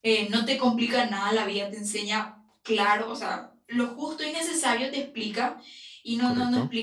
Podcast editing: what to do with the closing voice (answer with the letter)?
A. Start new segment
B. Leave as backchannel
B